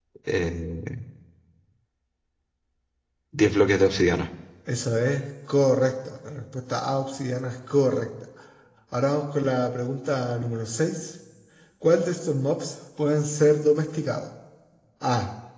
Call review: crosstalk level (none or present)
none